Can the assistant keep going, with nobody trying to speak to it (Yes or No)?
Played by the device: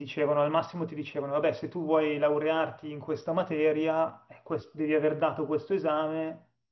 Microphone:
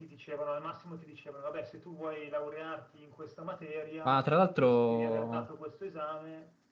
No